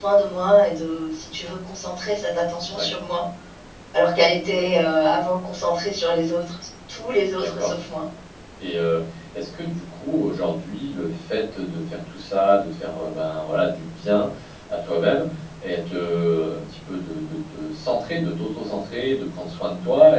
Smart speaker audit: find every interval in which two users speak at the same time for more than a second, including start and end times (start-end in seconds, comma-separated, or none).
none